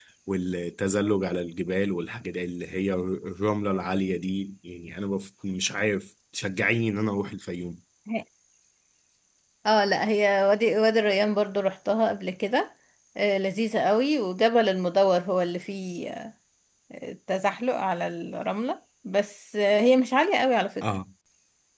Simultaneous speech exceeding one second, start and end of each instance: none

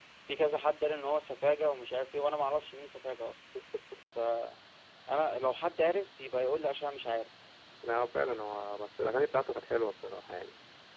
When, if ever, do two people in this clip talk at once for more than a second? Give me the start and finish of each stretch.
none

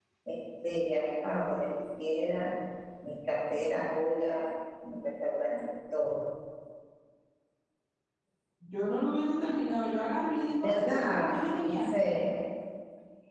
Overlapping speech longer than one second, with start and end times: 10.6-12.0

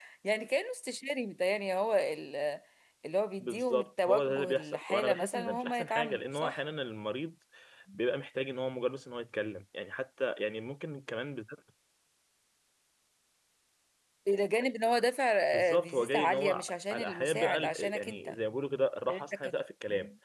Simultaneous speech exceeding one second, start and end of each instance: 3.4-6.6, 15.5-18.3

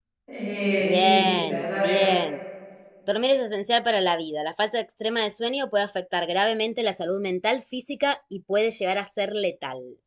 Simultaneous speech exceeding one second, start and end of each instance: 0.8-2.1

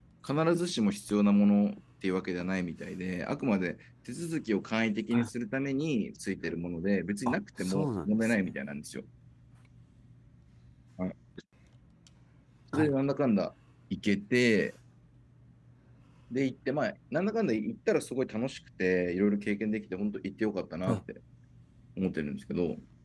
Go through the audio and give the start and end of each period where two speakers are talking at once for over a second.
7.3-8.5

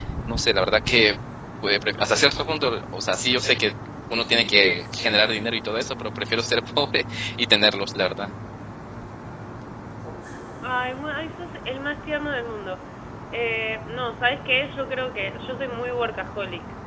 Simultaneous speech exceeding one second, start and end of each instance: none

